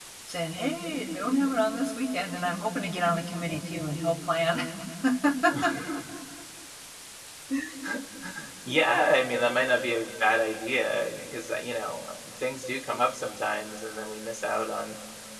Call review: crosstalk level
none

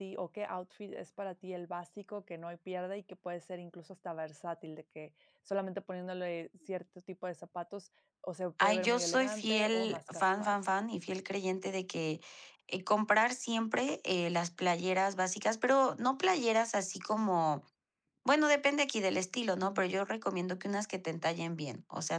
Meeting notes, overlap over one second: present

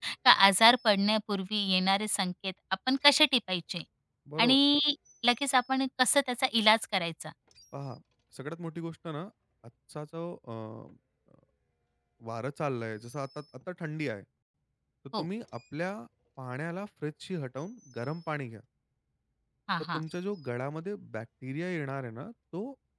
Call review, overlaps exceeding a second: none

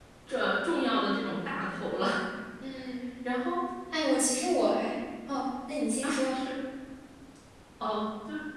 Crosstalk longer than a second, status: none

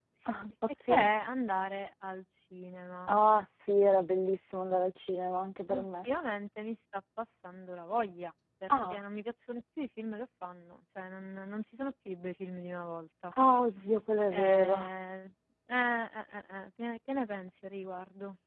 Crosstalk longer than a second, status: none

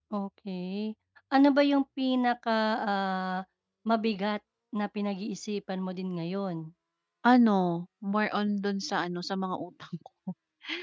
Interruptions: none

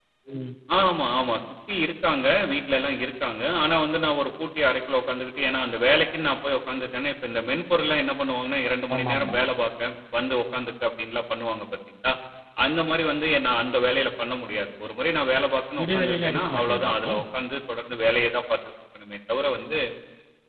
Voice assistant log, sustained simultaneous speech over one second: present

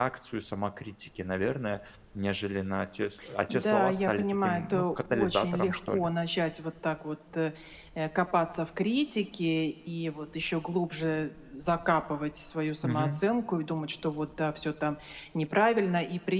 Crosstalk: present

